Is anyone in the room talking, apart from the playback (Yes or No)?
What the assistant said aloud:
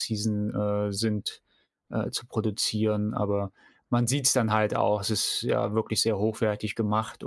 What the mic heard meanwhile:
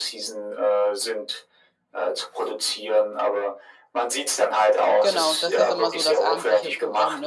Yes